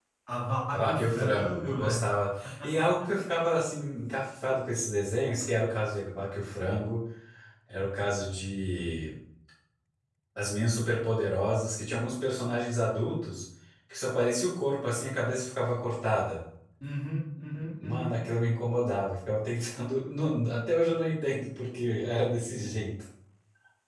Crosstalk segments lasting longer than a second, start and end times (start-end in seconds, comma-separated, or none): 0.7-2.0